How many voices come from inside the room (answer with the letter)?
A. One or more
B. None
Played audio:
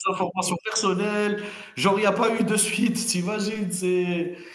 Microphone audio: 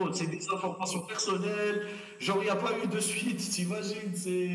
B